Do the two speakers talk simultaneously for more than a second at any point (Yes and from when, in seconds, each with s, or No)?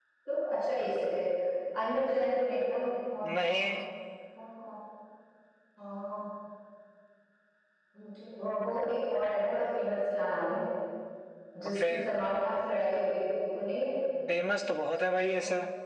No